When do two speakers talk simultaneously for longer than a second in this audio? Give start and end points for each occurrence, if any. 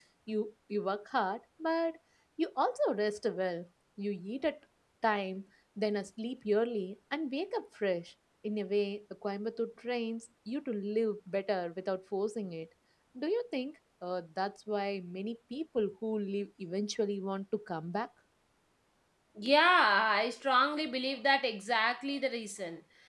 none

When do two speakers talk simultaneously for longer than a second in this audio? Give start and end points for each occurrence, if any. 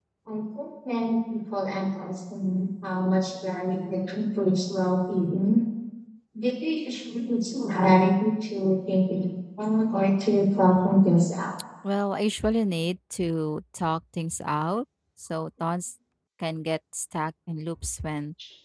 none

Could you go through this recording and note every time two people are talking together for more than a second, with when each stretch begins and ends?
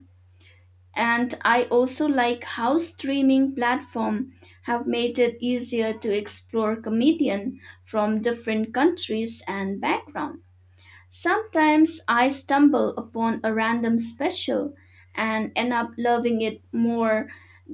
none

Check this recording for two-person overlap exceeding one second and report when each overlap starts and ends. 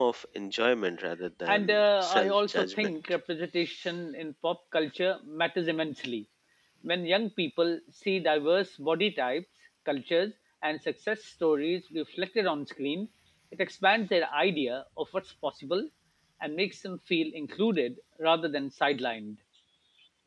1.5-3.0

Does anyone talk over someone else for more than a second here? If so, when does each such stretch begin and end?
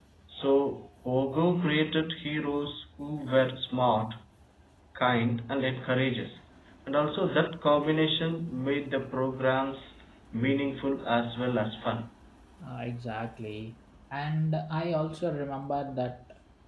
none

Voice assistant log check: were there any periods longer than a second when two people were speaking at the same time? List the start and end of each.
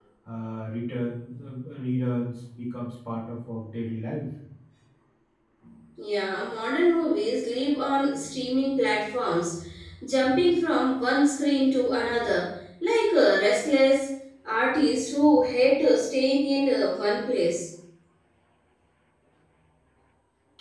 none

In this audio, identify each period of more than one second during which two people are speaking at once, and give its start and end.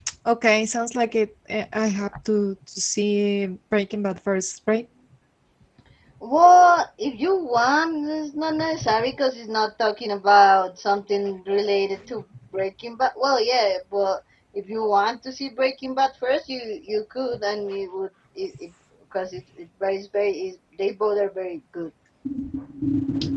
none

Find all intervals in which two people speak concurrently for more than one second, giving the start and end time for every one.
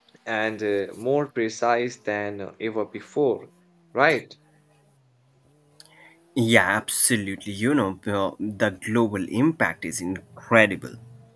none

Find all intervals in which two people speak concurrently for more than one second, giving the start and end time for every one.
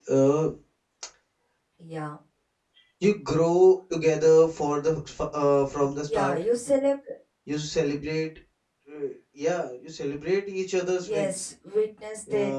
none

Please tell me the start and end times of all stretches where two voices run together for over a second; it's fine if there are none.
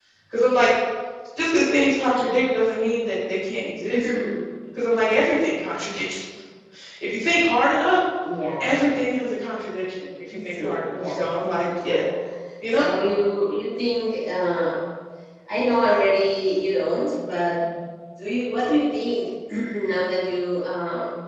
10.3-12.0

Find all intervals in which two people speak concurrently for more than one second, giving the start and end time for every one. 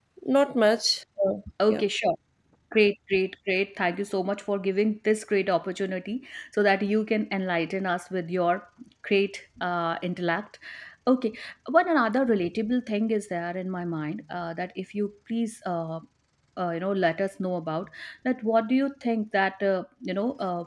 none

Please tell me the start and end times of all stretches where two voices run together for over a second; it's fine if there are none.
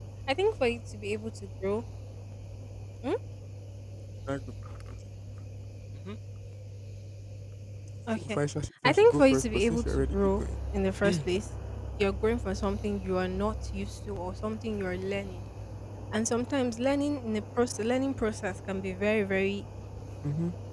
8.8-10.4

